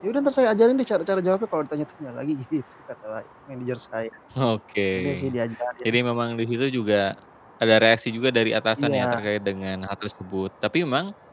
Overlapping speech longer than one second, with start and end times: none

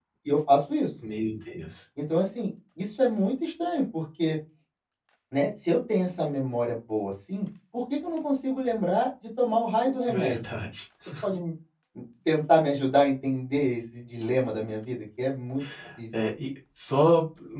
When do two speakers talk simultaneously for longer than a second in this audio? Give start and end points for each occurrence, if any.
none

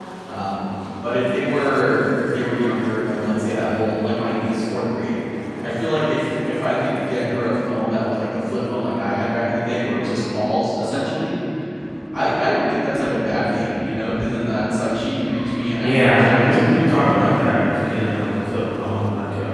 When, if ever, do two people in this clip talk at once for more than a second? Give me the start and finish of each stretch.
15.8-17.4

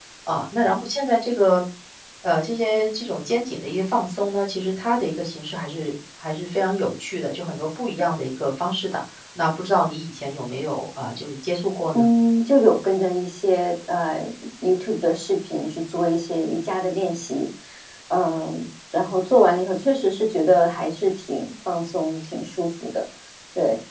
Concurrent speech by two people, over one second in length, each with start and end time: none

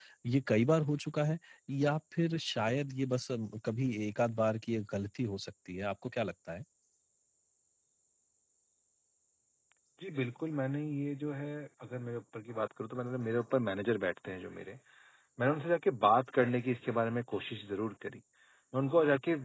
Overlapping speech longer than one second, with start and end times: none

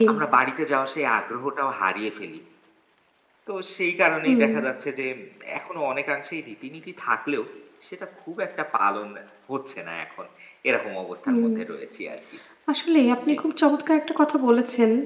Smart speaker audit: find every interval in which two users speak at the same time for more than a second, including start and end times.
none

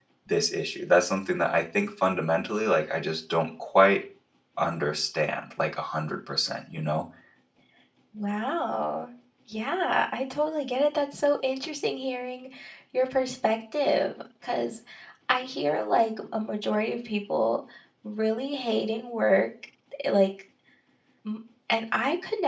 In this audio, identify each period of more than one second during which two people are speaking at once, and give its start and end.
none

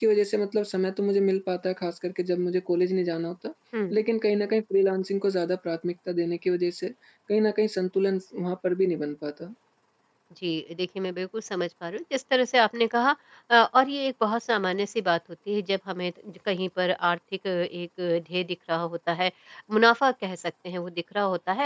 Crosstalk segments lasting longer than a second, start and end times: none

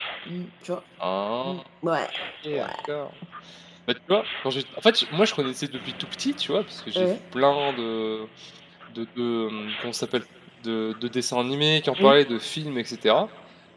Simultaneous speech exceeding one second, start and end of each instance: none

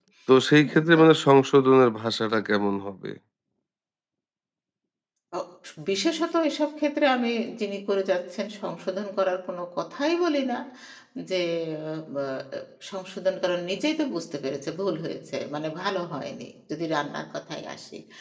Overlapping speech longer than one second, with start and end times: none

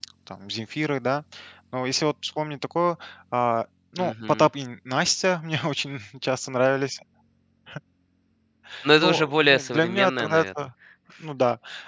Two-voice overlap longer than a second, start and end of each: 9.0-10.4

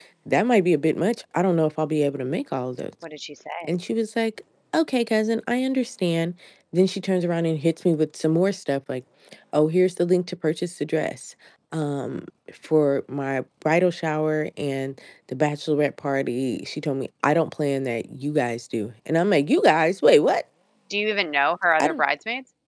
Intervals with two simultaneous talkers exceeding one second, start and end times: none

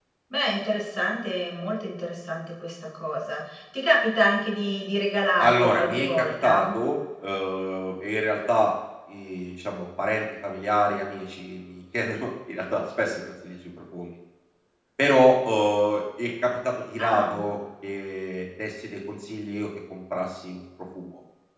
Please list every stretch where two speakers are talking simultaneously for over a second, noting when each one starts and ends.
5.4-6.7

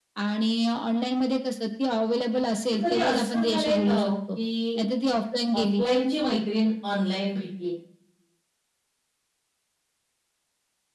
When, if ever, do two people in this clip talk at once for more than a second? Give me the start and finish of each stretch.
2.8-4.1

